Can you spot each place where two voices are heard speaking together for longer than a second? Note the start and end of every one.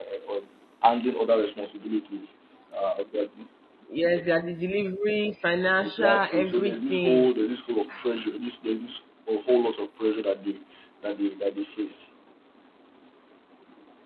5.8-7.3

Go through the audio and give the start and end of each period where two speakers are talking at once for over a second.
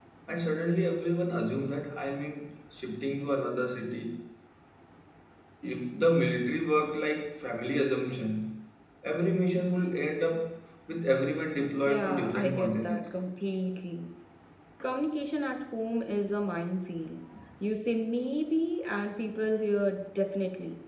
11.8-13.2

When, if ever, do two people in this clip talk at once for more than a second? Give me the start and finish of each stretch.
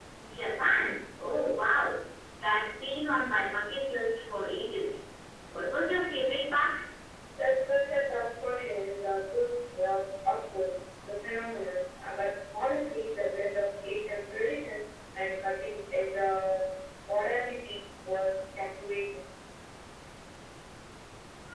none

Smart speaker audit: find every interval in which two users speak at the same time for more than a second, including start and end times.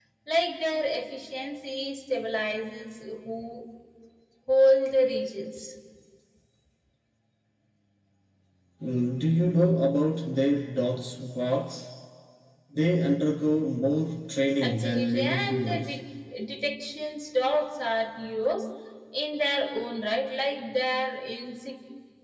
14.6-16.0

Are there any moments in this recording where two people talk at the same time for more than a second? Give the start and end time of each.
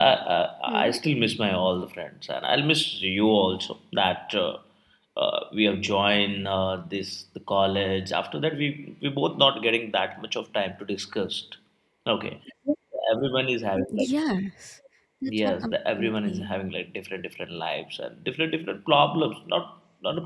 15.3-16.6

